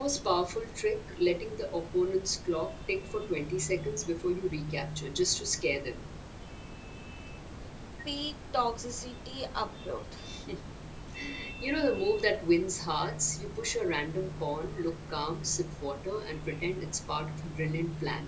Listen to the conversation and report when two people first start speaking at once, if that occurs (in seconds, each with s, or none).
none